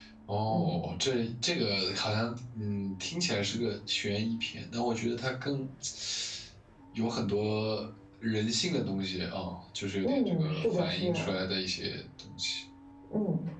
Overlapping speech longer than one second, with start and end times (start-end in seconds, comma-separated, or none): 10.0-11.3